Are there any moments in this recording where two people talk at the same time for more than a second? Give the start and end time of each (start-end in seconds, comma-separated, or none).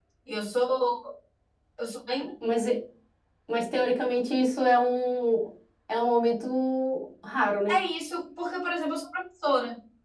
none